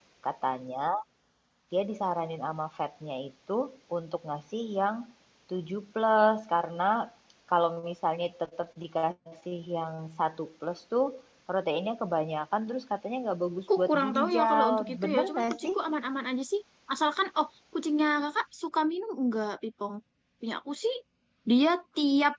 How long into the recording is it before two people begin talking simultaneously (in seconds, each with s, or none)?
13.7 s